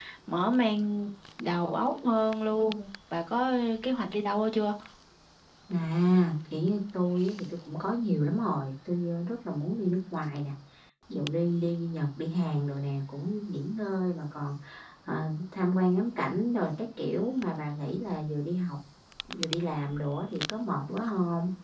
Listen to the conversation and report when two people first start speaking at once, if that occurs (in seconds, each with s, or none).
none